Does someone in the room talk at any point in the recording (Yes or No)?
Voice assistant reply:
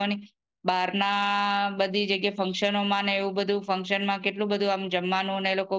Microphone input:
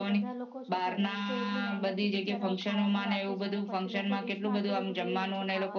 Yes